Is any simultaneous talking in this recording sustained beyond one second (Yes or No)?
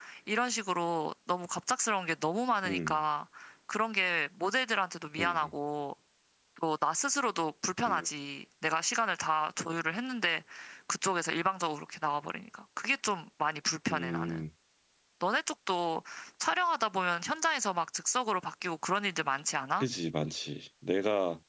No